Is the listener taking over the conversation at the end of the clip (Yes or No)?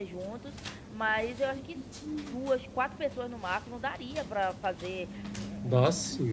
No